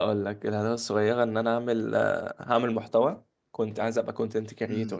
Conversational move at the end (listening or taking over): taking over